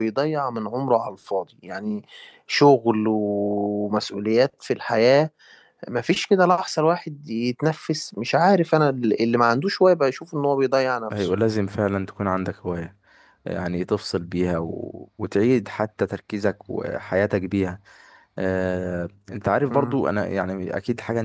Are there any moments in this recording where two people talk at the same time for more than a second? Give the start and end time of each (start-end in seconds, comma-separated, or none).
none